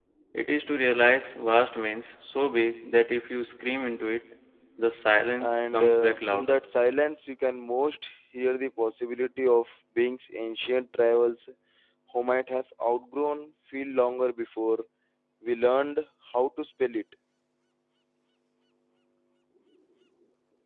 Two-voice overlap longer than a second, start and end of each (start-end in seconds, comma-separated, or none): 5.4-6.6